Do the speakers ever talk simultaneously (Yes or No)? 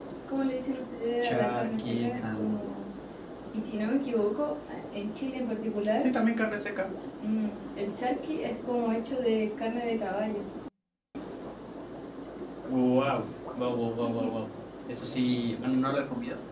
Yes